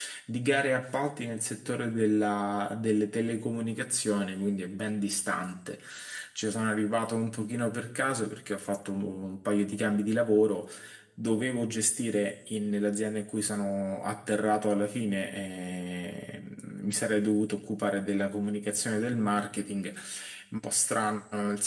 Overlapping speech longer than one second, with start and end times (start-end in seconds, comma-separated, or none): none